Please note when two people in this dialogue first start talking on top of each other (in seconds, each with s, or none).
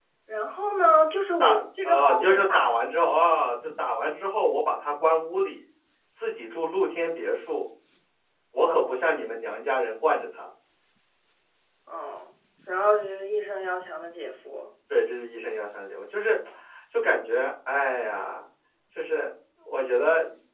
1.4 s